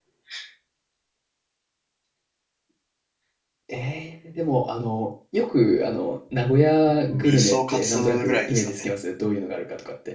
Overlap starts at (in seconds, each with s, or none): 7.0 s